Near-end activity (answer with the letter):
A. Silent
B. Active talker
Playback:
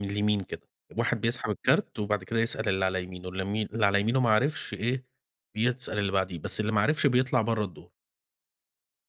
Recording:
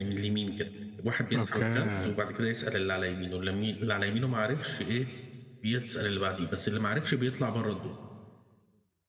B